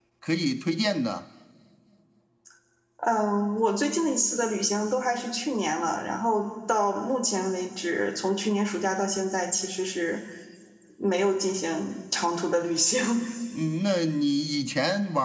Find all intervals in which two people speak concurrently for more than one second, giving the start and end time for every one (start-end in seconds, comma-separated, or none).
none